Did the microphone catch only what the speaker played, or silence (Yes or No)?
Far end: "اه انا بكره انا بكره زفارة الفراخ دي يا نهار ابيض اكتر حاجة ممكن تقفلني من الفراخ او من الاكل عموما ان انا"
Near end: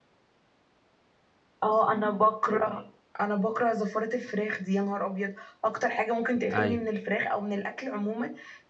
No